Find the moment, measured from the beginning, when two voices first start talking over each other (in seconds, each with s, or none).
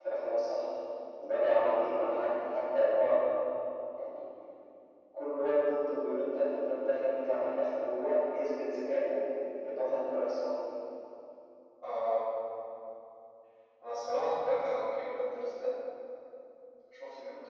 none